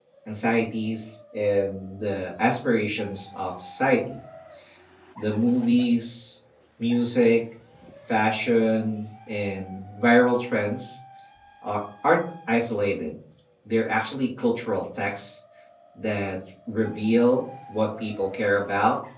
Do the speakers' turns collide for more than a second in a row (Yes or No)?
No